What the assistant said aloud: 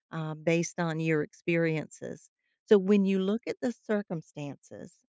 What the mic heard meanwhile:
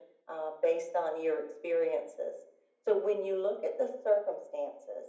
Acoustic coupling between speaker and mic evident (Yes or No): Yes